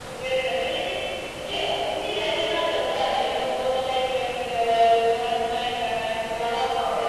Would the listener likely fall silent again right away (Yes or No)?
Yes